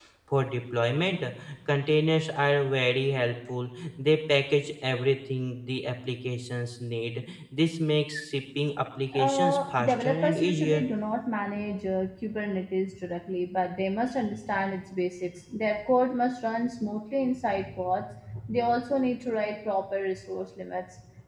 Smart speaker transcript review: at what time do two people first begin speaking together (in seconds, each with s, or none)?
9.1 s